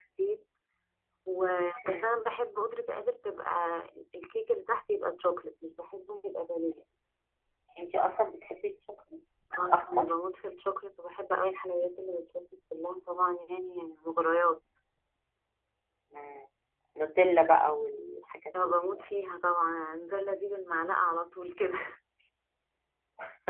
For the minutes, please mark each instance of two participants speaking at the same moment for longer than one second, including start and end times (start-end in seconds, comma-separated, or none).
none